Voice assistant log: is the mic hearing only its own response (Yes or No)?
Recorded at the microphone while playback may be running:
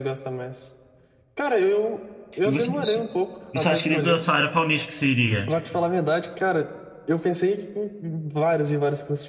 No